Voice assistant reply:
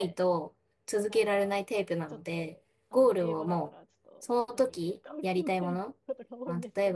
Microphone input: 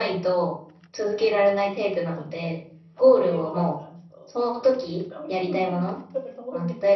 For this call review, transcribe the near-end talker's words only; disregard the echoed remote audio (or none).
none